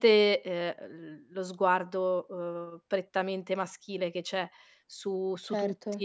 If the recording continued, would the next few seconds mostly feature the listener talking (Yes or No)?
No